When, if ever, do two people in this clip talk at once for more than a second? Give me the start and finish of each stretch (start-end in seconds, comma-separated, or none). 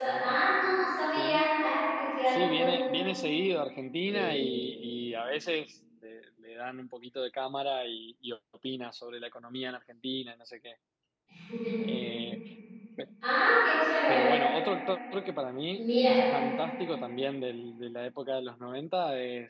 none